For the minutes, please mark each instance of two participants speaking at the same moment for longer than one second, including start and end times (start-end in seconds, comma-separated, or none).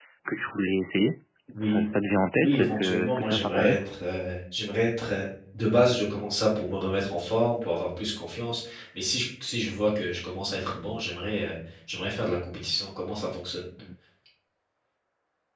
2.4-3.9